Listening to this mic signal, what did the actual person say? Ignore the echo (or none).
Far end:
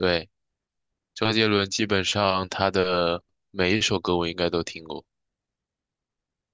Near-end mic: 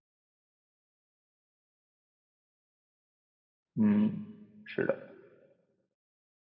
嗯，是的。